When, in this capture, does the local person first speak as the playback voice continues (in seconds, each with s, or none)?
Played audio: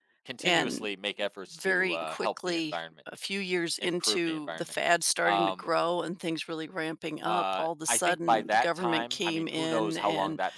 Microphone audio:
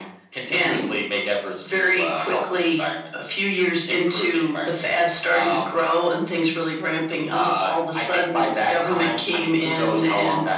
none